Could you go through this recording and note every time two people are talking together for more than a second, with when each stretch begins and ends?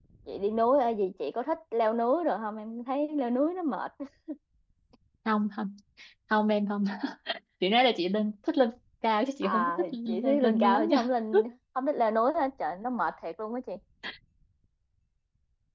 9.4-11.1

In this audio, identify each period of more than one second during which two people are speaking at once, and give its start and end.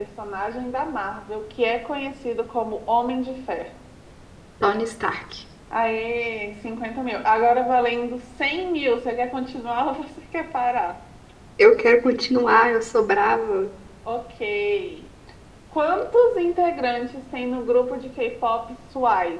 none

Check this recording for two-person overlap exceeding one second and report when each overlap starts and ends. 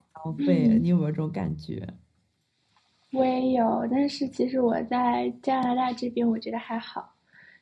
none

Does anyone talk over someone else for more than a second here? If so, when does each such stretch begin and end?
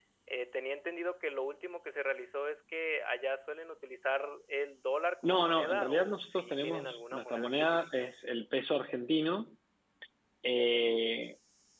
5.2-8.1

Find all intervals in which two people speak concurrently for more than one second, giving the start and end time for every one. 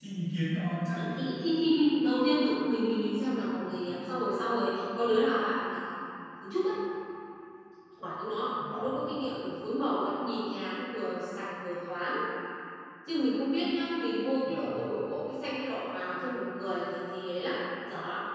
none

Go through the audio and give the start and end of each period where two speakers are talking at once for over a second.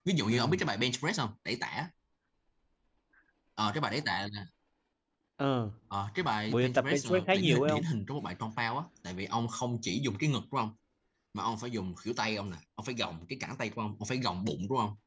6.5-7.8

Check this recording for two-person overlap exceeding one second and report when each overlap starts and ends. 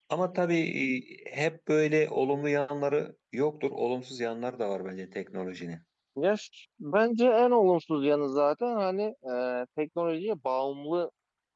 none

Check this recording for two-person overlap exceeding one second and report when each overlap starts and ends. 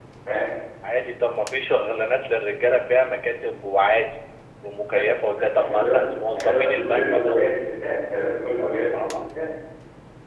4.9-7.5

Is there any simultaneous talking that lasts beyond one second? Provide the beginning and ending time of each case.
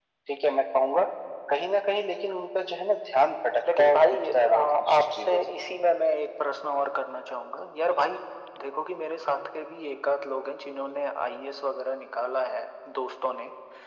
3.8-5.5

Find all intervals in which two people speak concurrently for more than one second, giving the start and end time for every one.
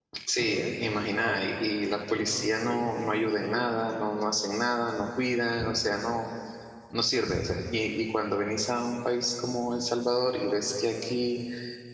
2.1-3.7

